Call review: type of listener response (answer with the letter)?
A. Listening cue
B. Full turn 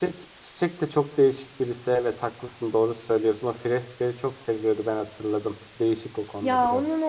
B